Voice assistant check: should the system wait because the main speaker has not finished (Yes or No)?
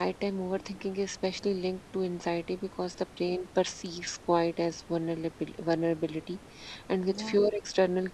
Yes